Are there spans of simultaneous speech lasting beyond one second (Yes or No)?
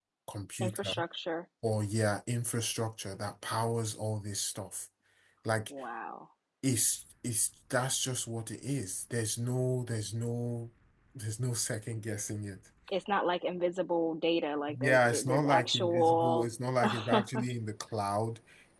Yes